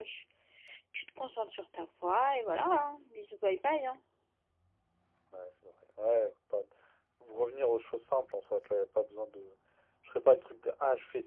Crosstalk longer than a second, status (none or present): none